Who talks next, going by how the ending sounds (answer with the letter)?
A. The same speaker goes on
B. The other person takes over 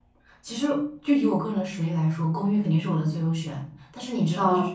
A